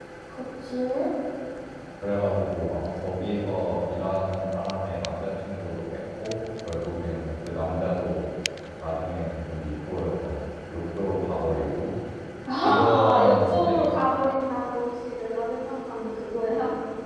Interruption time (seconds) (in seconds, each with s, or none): 12.6 s